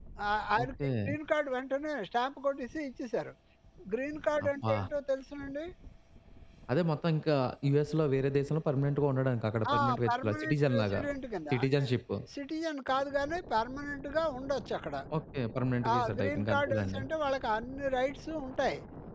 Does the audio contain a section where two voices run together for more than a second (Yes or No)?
Yes